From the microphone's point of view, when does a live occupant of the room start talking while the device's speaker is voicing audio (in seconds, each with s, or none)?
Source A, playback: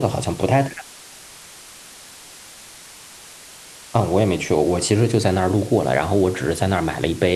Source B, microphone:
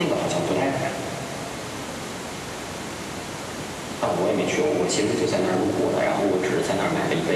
none